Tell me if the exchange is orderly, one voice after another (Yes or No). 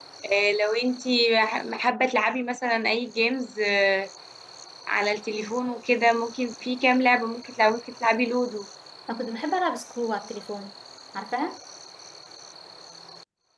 Yes